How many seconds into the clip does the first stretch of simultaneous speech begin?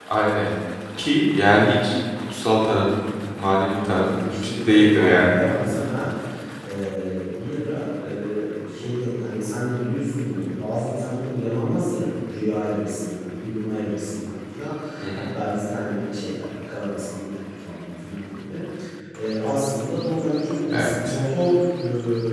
3.6 s

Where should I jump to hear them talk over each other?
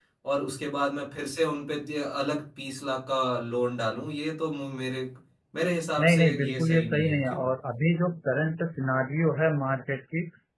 6.0 s

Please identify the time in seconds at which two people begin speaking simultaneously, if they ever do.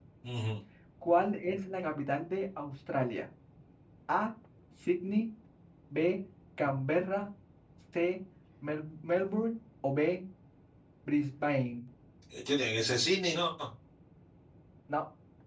none

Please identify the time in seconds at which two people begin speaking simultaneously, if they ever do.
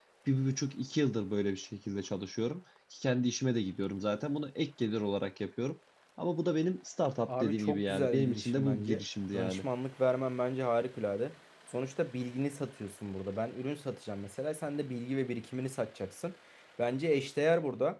7.3 s

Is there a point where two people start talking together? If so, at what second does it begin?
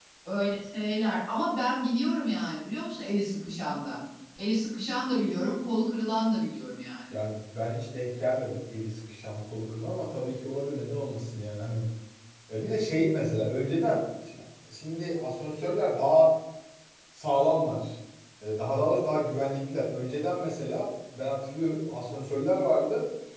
none

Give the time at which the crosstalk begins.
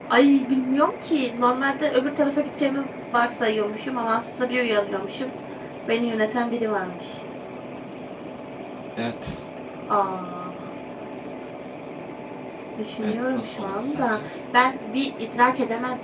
13.0 s

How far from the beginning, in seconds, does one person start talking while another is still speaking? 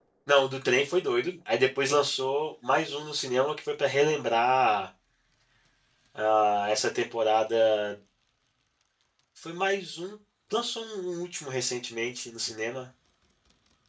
none

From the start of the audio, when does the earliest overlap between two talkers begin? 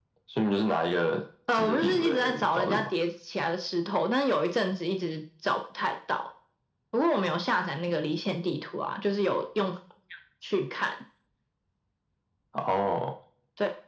1.5 s

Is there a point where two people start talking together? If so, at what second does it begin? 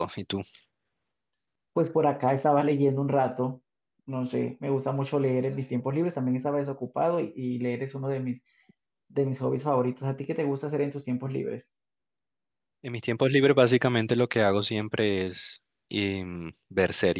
none

